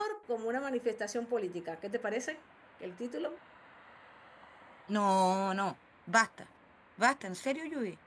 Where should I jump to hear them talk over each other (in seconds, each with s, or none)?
none